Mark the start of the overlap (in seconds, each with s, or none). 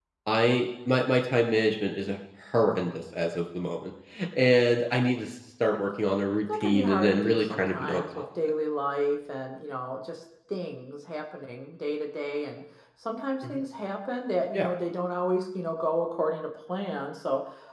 6.5 s